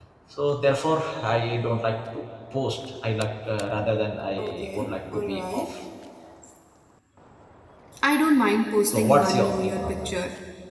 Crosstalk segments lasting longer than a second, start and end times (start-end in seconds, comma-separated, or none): 4.4-5.7, 8.9-10.1